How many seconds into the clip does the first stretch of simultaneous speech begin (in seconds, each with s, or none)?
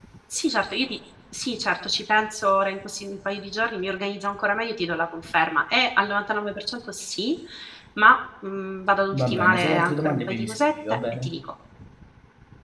9.1 s